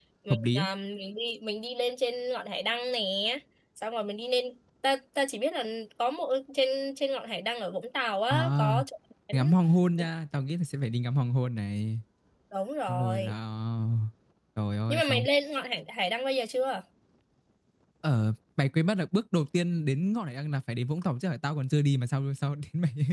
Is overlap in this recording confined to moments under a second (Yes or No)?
Yes